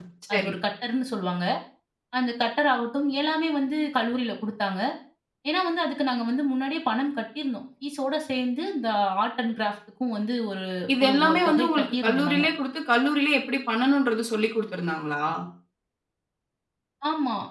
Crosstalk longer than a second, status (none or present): present